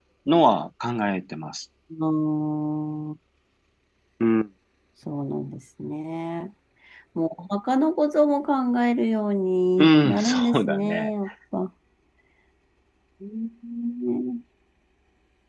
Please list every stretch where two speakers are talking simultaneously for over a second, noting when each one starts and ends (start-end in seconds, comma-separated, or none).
9.8-11.1